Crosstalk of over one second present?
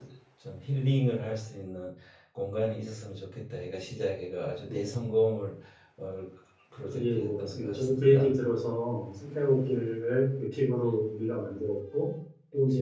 Yes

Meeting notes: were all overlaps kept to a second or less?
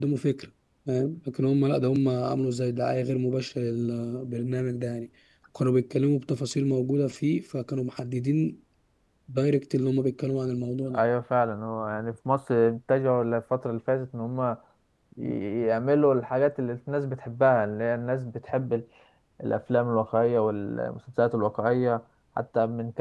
Yes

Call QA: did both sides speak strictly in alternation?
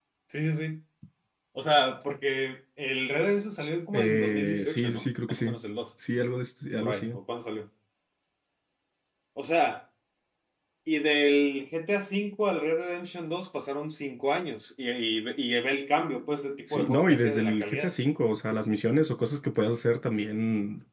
No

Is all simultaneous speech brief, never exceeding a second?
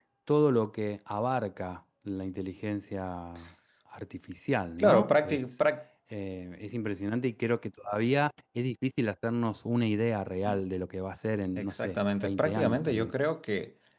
No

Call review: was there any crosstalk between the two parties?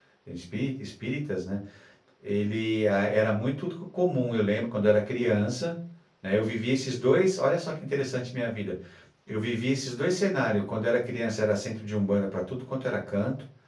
No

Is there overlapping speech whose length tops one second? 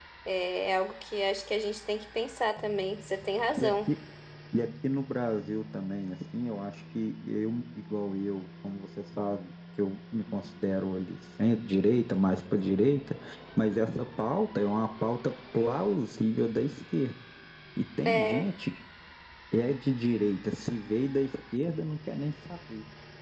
No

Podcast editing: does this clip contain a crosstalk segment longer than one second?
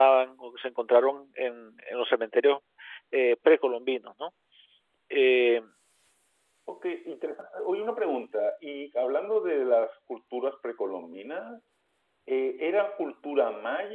No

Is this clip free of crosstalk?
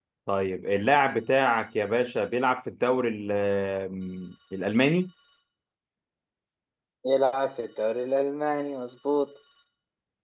Yes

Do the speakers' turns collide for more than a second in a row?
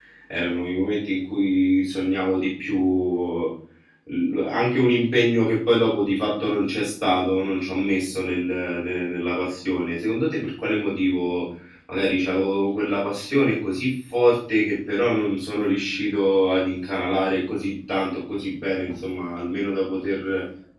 No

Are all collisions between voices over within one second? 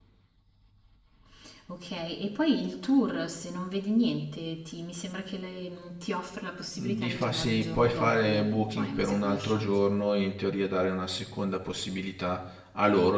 No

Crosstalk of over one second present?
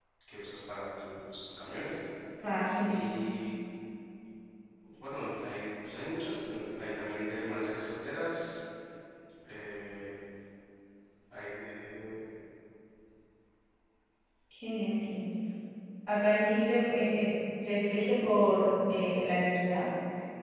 No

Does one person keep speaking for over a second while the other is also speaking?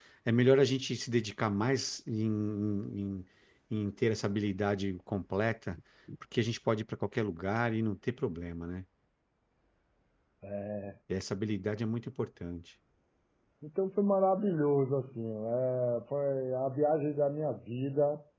No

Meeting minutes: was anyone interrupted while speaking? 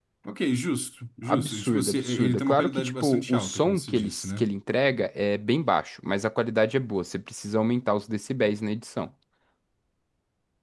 Yes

